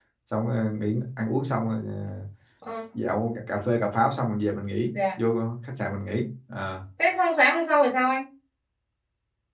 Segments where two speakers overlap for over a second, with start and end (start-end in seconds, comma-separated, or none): none